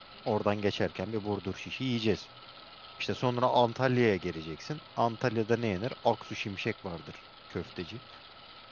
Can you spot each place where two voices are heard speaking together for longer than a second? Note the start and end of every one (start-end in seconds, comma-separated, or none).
none